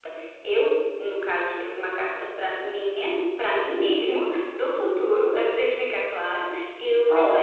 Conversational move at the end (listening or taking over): listening